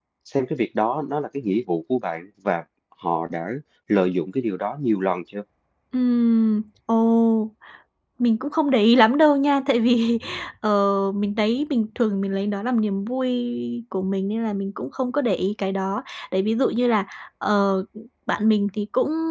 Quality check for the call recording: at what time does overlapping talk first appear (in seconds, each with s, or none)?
none